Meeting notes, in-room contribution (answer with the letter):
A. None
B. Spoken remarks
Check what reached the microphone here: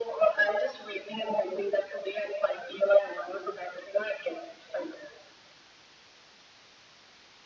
A